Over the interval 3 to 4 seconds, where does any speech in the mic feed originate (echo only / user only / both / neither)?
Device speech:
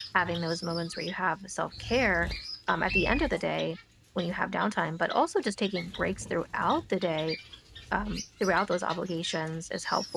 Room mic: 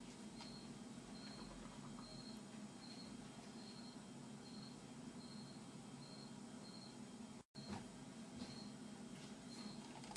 neither